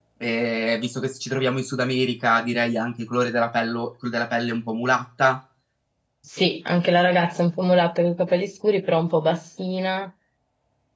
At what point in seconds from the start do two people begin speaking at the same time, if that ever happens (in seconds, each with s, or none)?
none